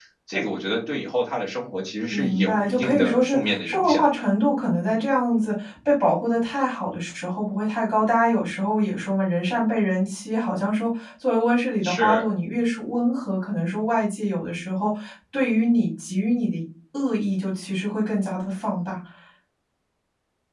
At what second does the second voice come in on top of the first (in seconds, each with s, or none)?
2.1 s